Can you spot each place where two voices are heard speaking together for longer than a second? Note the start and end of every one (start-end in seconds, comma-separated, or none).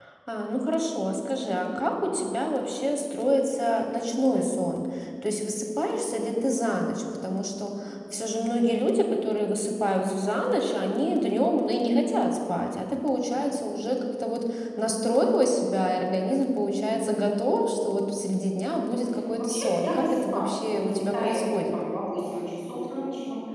19.4-21.8